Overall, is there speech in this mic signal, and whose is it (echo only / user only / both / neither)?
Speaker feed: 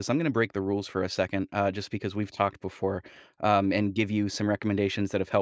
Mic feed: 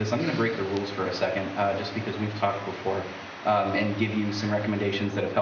echo only